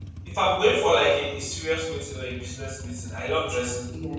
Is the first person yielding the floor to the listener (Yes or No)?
No